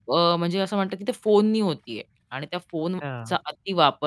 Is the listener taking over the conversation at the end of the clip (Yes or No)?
No